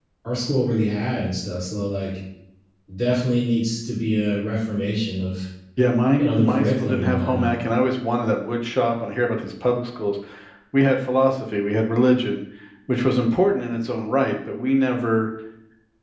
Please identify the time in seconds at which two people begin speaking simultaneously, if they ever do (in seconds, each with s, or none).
6.2 s